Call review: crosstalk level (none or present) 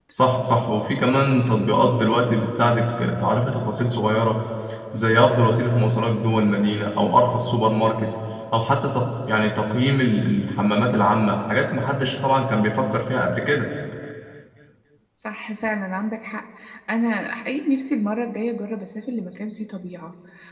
none